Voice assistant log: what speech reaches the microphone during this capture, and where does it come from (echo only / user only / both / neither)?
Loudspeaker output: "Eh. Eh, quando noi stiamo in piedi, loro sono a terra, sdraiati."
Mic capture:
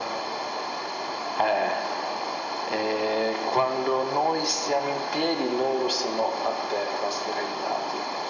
echo only